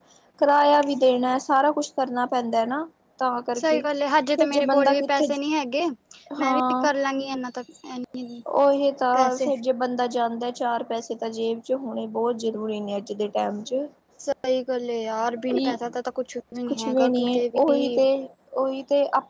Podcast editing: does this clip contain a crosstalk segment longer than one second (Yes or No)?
Yes